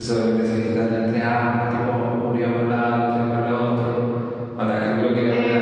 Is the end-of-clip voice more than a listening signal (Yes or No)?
Yes